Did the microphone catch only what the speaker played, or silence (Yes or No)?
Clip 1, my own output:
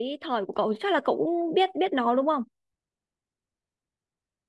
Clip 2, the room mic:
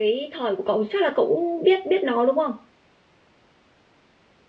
Yes